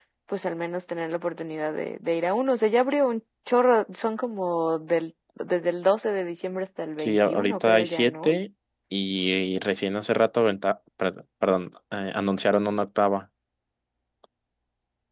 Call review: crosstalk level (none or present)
present